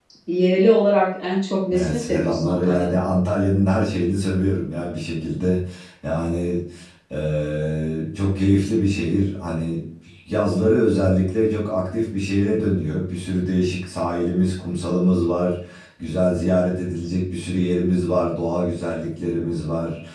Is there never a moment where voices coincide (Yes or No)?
No